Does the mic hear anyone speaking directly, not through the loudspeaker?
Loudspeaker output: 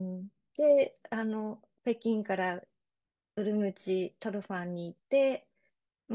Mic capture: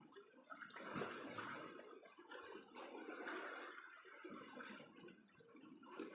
No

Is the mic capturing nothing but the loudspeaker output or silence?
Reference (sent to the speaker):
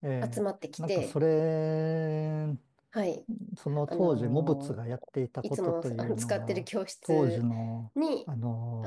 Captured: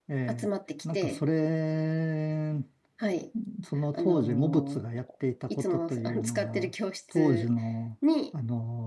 Yes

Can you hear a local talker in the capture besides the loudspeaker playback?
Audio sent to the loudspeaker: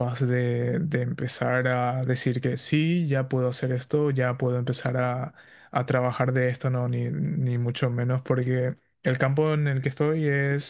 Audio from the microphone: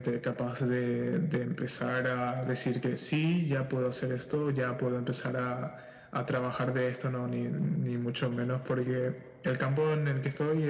No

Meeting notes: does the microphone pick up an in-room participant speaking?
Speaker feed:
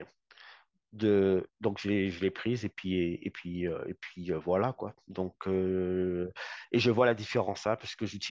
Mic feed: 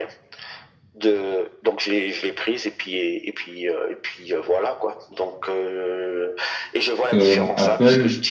Yes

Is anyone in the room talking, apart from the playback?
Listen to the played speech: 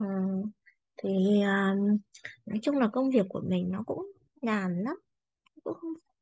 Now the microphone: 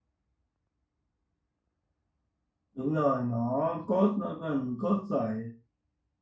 Yes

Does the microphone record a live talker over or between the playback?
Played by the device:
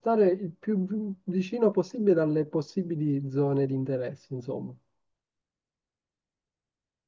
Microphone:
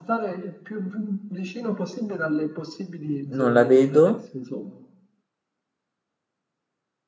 Yes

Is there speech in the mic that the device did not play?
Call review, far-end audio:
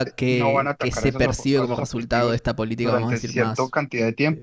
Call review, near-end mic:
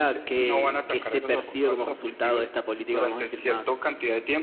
No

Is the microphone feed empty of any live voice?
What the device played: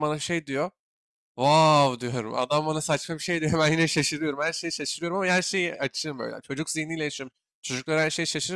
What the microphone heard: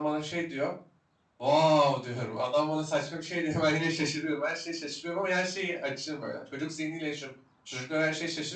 Yes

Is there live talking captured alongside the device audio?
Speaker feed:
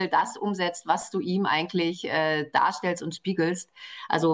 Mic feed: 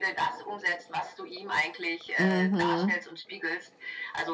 Yes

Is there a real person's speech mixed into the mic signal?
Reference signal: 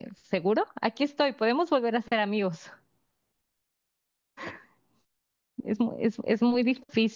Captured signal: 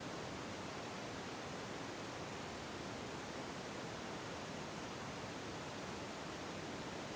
No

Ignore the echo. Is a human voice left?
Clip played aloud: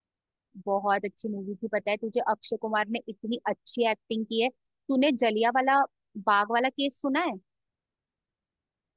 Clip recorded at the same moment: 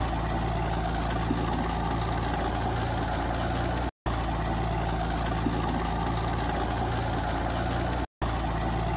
No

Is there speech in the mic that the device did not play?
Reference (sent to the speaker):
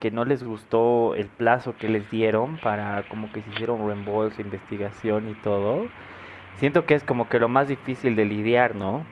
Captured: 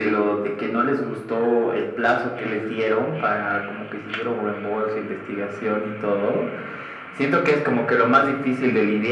No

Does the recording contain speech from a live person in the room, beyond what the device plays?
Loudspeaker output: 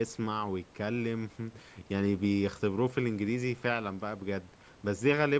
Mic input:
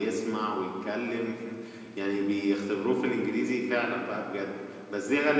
No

